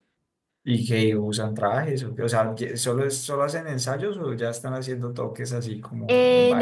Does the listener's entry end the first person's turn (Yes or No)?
Yes